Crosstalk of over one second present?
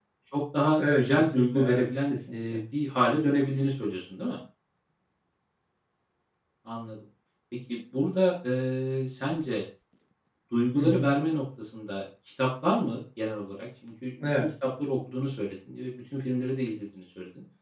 Yes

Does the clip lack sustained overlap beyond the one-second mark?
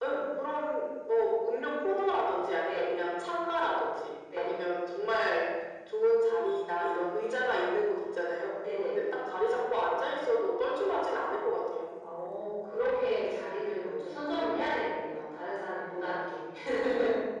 Yes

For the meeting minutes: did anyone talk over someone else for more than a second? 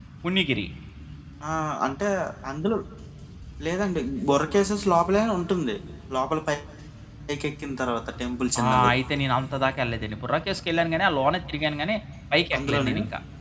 No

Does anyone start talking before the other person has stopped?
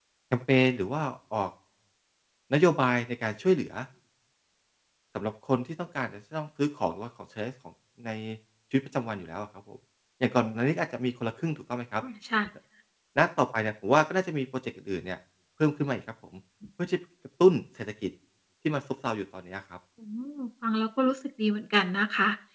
No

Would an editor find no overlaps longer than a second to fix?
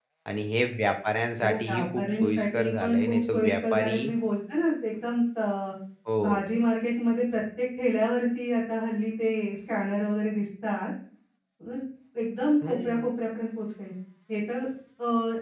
No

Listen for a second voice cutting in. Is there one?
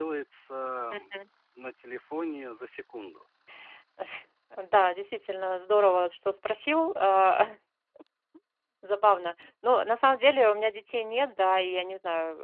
No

